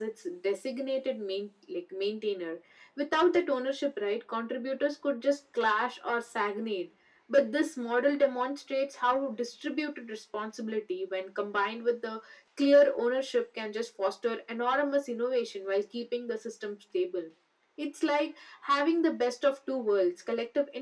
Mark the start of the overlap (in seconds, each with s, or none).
none